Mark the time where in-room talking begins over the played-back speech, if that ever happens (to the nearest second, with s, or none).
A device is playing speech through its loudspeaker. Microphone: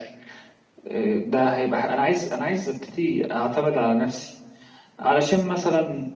none